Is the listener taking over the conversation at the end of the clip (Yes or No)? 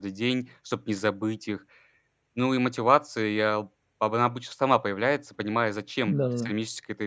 No